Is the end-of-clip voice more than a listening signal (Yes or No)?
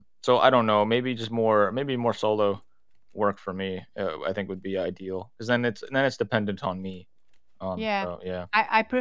Yes